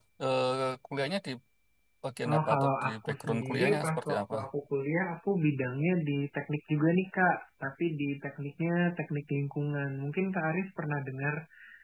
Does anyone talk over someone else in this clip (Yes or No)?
Yes